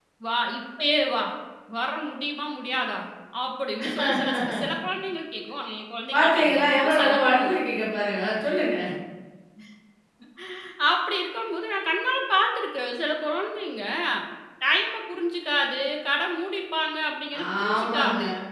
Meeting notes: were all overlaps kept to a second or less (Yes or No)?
No